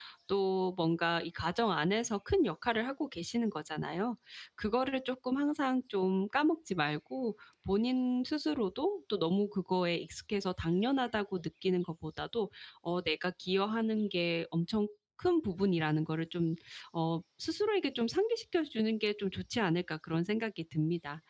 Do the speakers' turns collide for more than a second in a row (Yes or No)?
No